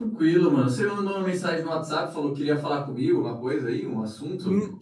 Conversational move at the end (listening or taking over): taking over